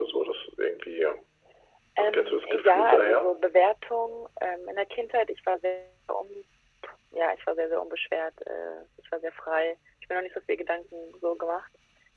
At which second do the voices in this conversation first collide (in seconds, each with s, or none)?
2.0 s